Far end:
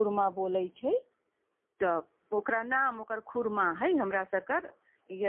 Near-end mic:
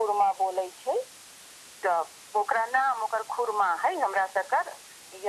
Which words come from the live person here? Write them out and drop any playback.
none

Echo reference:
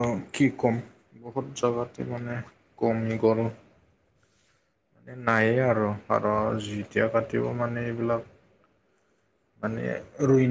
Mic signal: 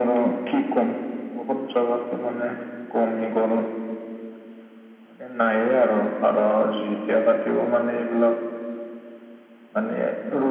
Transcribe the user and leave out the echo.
none

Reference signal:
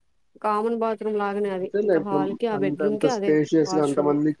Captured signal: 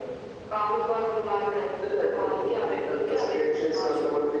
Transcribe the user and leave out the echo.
none

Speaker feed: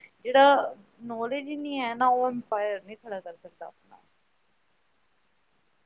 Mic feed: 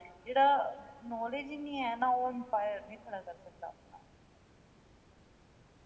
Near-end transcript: none

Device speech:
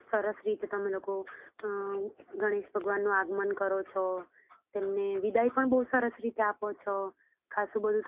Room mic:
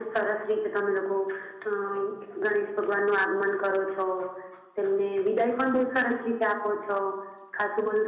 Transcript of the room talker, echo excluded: none

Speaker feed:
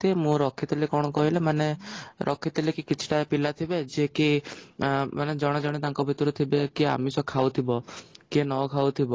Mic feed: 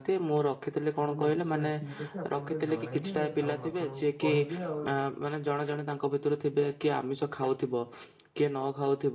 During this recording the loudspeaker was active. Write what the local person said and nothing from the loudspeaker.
ଆରେ ନିଶ୍ଚୟ ଠିକ୍ ଅଛି ଆପଣ ମୋତେ ଜଣେଇବେ ଆଉ ମୁଁ ଆପଣଙ୍କୁ କହିବି ଆଉ

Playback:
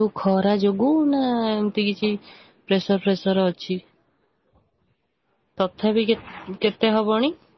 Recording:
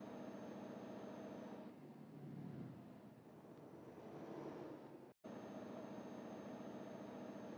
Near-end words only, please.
none

